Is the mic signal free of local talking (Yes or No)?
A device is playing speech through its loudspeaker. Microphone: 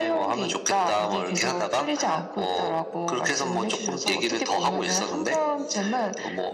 Yes